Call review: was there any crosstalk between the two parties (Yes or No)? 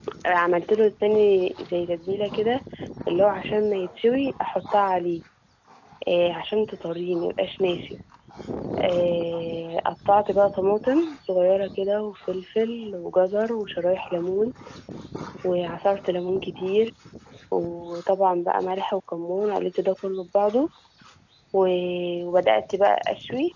No